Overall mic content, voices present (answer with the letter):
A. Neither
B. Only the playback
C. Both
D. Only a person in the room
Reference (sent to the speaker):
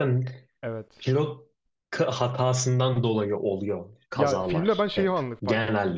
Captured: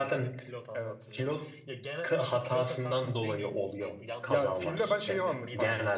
C